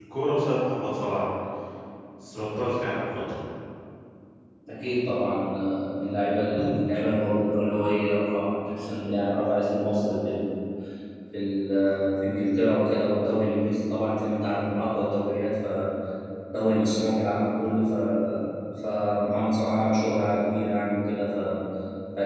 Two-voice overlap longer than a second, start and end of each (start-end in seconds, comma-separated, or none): none